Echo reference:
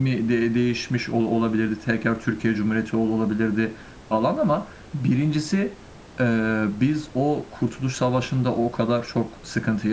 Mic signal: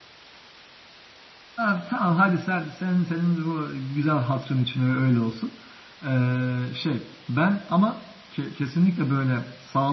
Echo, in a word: none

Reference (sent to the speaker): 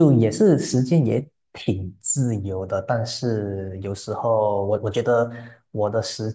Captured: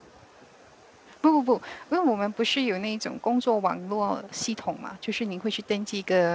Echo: none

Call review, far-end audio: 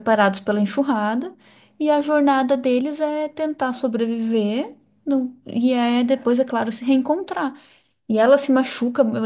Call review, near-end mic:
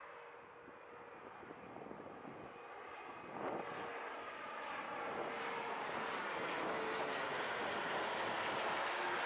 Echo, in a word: none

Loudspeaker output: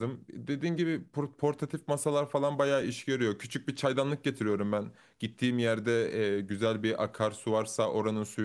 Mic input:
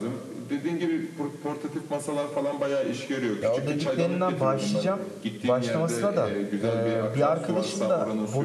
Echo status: present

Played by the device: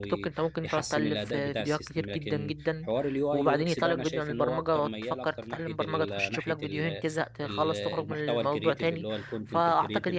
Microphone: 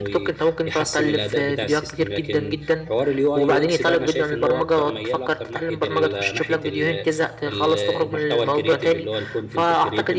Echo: present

